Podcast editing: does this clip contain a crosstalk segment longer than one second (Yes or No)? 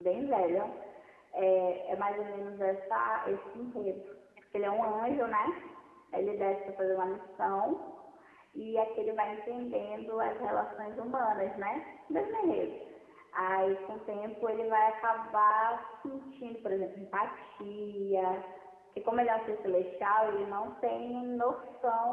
No